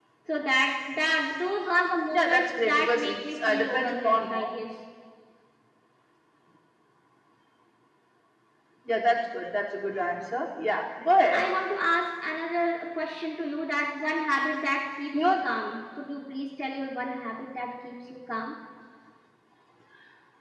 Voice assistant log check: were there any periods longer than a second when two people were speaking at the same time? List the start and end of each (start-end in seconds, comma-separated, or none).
2.1-4.5